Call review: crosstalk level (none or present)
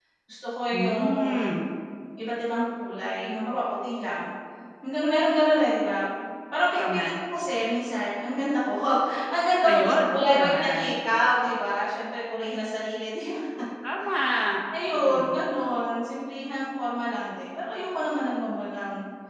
present